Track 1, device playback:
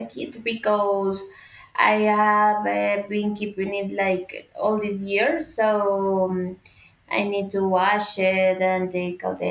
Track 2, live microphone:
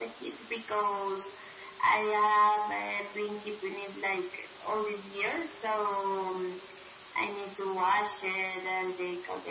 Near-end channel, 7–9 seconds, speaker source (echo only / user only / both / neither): echo only